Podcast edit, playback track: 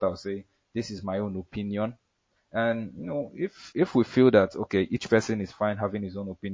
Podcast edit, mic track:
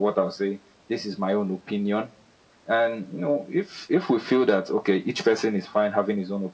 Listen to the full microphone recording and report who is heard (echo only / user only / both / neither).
echo only